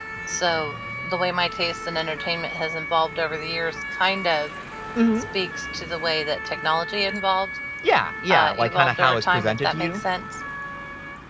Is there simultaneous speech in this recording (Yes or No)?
Yes